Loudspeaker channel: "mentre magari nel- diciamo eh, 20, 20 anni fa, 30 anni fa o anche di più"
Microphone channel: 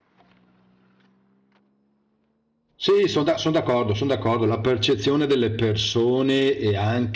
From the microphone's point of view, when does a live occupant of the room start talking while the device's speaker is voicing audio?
2.8 s

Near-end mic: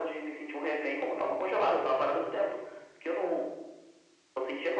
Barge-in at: none

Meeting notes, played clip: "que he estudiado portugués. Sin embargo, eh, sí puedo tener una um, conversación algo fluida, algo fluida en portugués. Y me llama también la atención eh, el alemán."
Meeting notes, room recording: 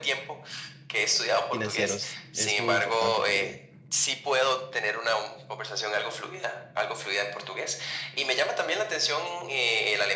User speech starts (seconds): 1.5 s

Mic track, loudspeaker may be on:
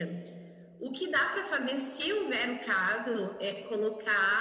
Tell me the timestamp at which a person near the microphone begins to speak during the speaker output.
none

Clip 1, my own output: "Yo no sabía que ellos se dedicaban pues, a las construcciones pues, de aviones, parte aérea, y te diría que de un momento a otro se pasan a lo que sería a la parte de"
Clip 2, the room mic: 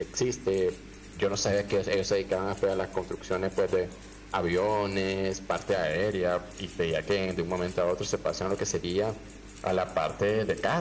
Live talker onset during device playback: none

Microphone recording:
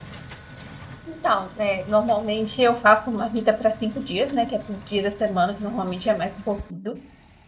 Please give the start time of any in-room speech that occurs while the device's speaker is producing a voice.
1.0 s

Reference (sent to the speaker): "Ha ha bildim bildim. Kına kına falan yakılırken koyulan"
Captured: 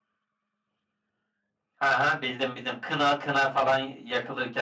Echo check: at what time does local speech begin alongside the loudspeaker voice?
none

